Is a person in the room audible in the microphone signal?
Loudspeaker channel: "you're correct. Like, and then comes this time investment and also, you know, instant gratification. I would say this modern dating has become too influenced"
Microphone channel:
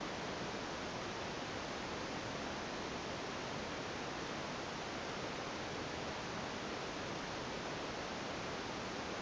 No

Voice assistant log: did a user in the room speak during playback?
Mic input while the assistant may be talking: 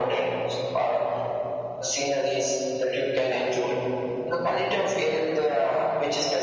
No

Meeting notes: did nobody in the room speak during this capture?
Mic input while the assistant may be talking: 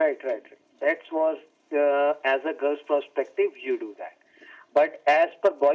Yes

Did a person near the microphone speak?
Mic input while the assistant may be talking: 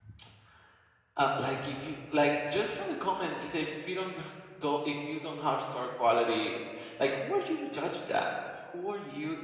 Yes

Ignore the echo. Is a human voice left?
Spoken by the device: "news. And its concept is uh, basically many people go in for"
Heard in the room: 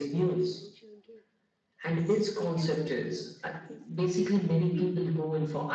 Yes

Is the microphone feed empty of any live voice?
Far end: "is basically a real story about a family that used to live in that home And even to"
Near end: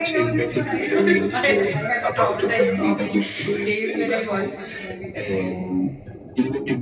No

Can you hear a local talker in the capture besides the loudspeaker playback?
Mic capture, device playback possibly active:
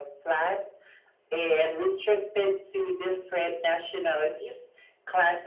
No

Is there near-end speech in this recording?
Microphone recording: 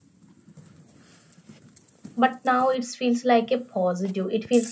Yes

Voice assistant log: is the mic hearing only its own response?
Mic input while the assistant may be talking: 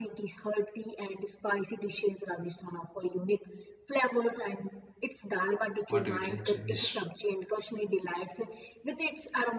No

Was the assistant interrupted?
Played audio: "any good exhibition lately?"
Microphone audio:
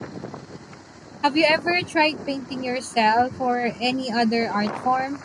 Yes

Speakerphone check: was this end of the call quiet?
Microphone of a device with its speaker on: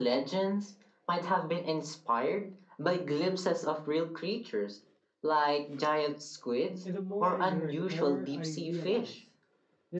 No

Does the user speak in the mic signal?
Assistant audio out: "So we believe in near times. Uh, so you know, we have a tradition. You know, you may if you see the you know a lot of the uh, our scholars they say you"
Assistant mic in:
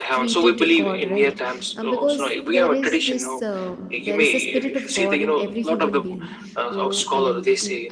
Yes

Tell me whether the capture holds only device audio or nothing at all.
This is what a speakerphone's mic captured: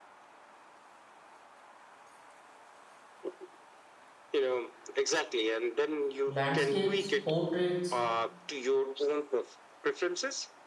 No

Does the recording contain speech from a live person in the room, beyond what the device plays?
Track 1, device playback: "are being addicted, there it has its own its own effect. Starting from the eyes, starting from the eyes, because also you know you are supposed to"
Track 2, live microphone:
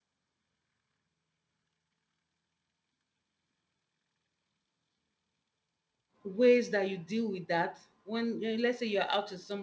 Yes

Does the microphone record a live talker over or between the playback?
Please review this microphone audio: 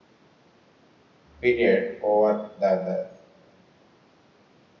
Yes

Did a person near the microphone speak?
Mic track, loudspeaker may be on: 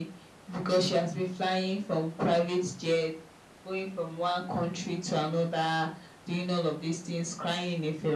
No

